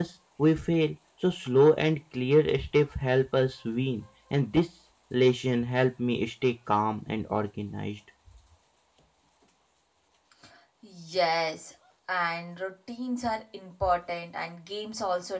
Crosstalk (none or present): none